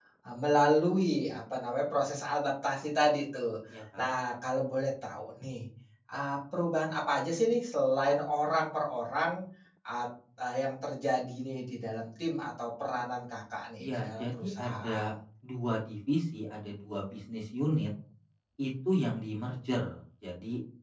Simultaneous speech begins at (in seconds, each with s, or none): 13.8 s